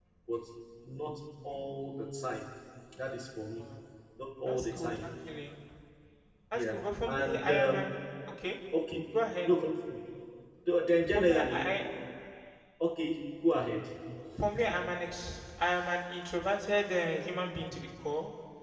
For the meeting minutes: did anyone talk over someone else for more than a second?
Yes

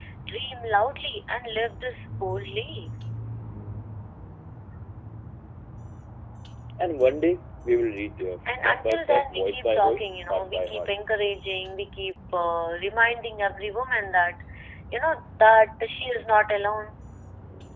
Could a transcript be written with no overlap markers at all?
No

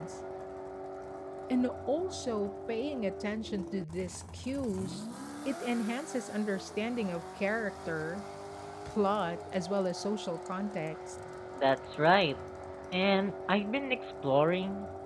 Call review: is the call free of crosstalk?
Yes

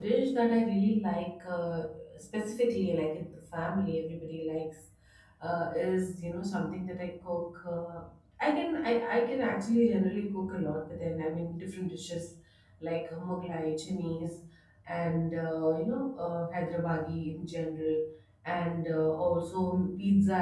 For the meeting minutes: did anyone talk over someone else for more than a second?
No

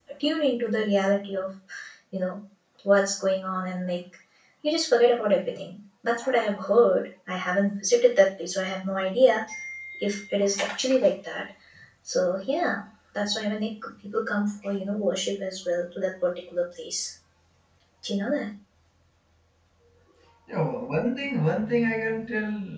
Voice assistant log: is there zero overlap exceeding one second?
Yes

